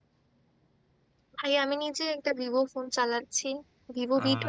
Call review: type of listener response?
listening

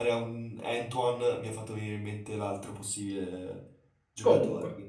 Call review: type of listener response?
taking over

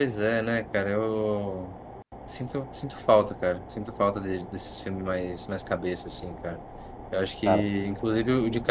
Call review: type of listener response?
listening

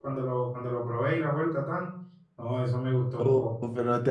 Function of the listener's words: taking over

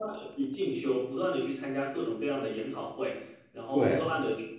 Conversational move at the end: listening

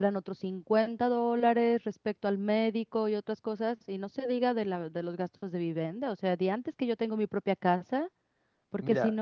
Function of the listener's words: listening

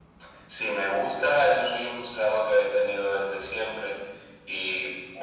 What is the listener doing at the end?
listening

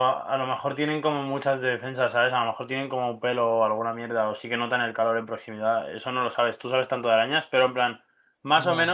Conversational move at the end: listening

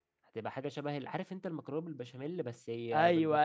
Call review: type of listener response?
taking over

